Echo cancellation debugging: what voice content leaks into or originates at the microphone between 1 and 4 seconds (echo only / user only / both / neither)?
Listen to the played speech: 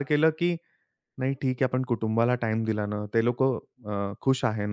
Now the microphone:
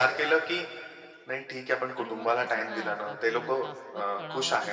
both